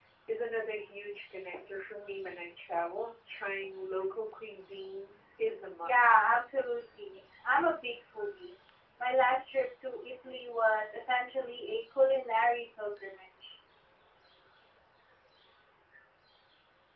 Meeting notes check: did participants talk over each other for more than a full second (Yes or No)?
No